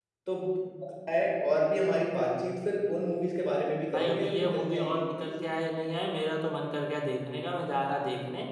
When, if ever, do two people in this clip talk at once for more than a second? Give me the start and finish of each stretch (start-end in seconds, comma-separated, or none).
3.9-5.3